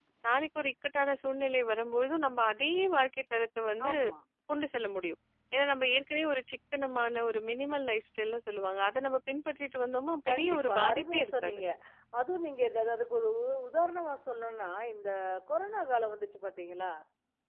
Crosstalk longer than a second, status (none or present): present